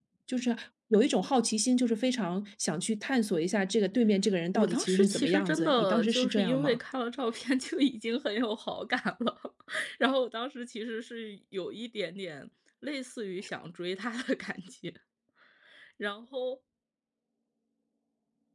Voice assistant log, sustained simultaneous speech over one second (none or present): present